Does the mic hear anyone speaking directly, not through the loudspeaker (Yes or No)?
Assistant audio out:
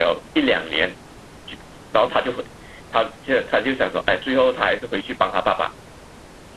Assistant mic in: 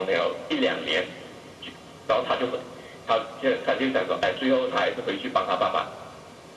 No